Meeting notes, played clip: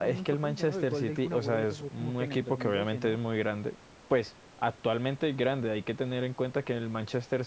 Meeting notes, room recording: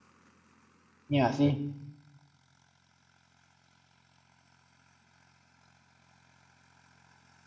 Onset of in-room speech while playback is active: 1 s

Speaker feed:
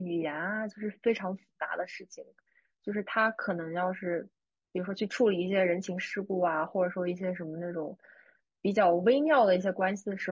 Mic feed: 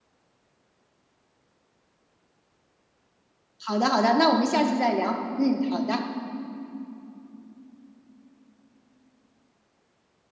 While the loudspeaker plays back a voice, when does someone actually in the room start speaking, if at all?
4 s

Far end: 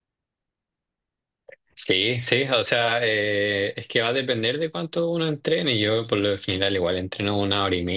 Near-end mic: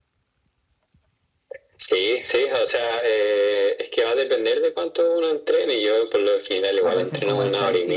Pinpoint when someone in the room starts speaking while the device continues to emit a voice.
7 s

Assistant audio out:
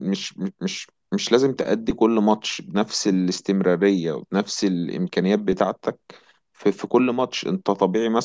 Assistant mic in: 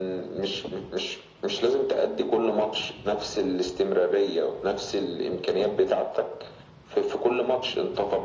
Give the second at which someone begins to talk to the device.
none

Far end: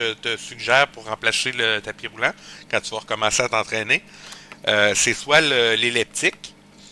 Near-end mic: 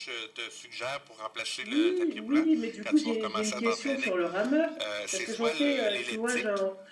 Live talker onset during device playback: 2 s

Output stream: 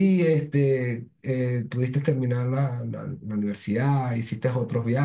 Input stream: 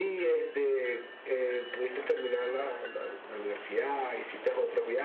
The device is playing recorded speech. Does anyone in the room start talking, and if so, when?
none

